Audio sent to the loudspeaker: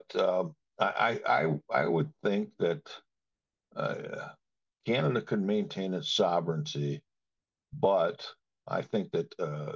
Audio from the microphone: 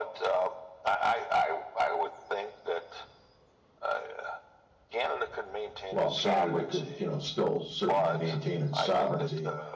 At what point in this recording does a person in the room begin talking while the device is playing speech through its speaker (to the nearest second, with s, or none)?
6 s